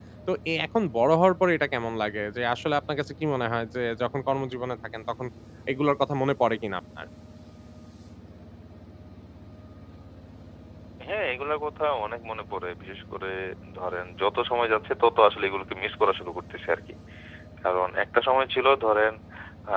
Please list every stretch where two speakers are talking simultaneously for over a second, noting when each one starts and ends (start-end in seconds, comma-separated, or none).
none